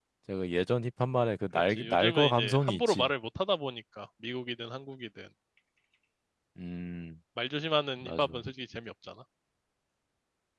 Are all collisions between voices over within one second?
No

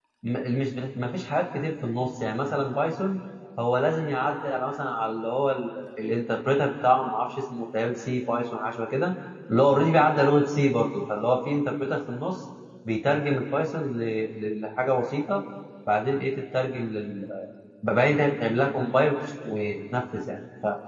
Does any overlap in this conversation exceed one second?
No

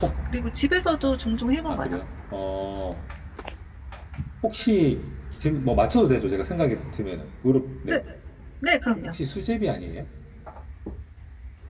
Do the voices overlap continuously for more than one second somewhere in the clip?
No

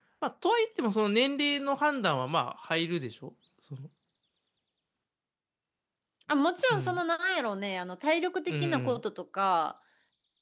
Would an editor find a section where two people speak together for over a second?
No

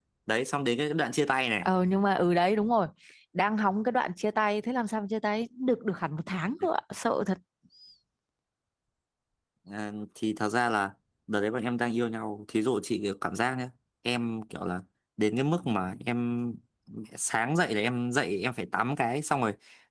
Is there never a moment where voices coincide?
Yes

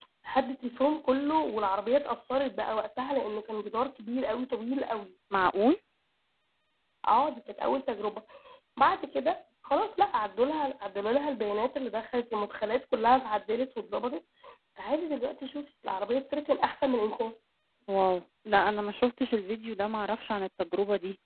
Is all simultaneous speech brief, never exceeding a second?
Yes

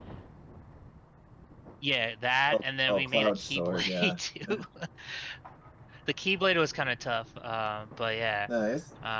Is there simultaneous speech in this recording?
Yes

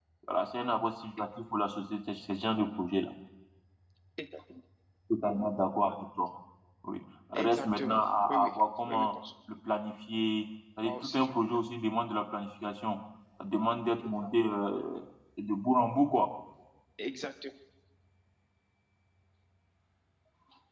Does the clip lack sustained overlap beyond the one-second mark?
No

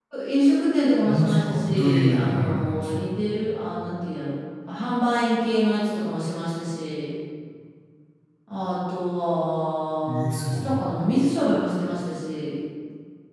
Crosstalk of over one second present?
Yes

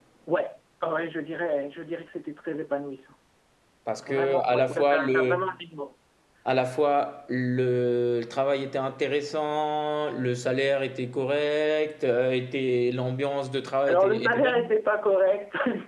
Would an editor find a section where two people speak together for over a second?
Yes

